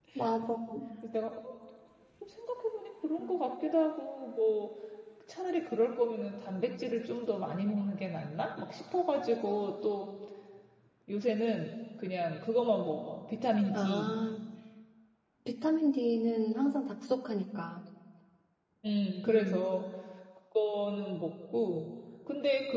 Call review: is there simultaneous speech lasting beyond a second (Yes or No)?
No